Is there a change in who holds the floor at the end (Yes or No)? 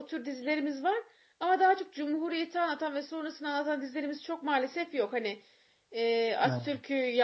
No